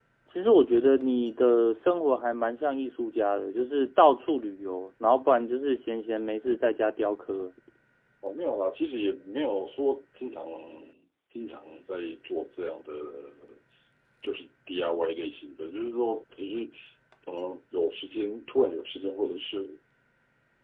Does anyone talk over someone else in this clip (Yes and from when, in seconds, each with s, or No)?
No